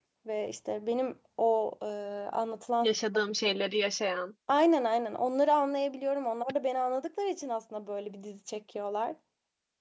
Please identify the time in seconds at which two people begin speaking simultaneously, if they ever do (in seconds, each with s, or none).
none